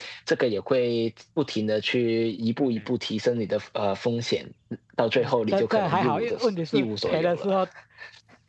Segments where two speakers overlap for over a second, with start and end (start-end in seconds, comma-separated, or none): 5.2-7.5